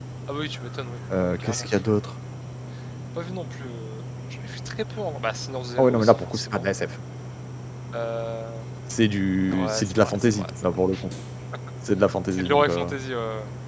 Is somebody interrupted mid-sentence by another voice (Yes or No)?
Yes